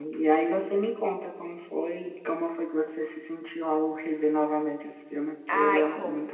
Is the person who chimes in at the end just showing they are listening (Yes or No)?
No